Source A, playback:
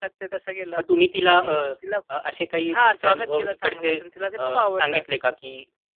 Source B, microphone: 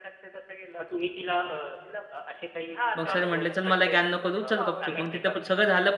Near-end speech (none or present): present